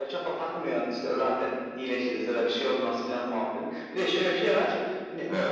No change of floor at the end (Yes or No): Yes